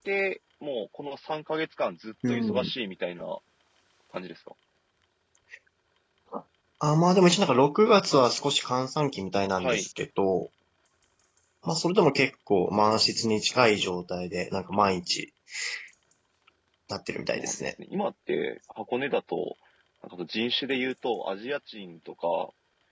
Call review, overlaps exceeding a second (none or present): none